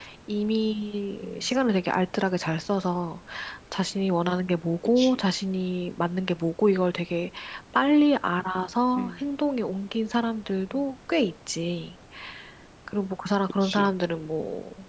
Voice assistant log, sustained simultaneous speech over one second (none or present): none